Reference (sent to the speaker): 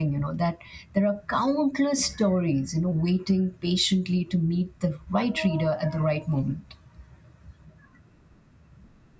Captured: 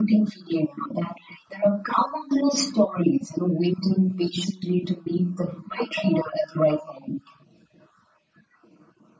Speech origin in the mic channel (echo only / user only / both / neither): echo only